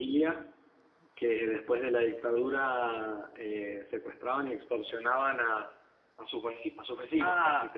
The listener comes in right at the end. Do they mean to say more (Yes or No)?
Yes